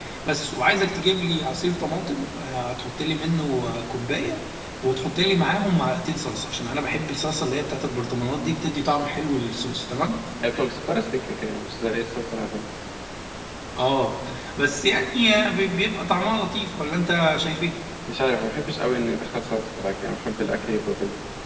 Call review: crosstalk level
none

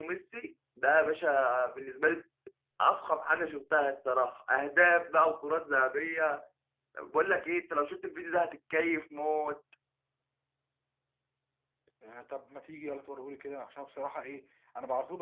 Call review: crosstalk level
none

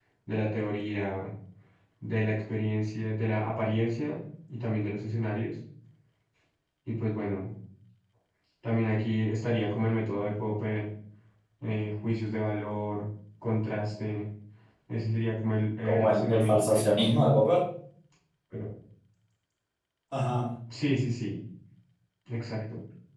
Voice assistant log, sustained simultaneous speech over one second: present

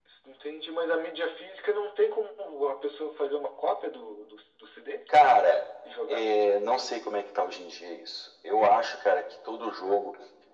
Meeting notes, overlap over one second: none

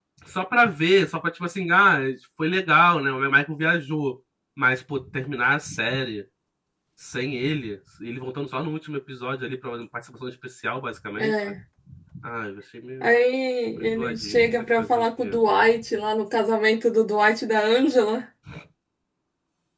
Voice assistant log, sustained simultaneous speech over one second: present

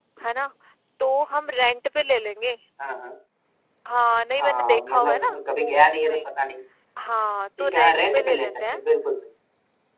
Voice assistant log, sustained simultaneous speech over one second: present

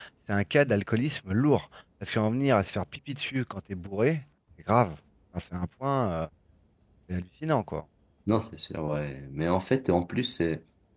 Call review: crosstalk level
none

